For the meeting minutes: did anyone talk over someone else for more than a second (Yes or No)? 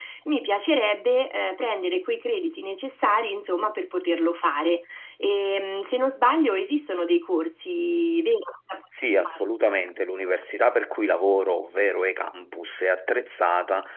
No